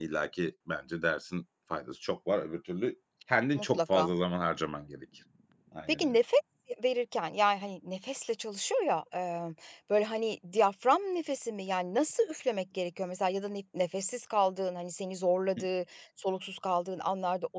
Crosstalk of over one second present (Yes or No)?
No